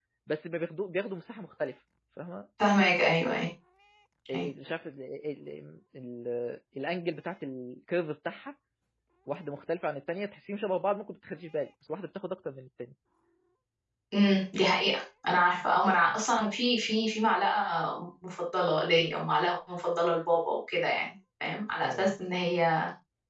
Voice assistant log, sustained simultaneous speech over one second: none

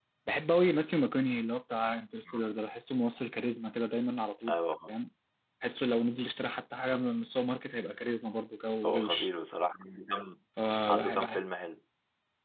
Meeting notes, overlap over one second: none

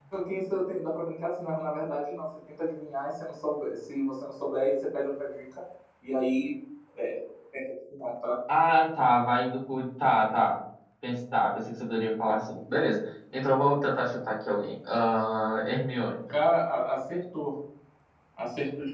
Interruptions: none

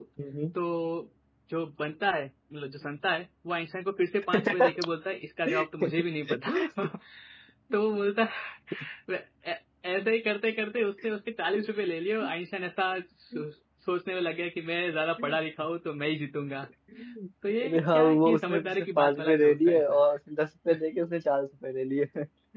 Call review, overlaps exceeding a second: present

